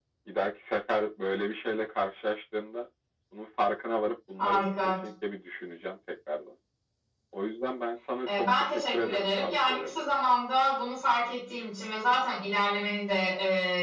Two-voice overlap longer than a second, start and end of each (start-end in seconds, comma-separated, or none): 8.2-10.0